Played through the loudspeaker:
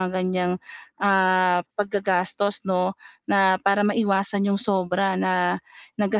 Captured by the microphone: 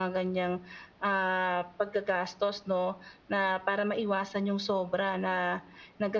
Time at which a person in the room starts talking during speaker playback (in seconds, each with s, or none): none